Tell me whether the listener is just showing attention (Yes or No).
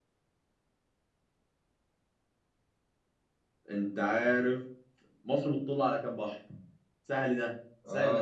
No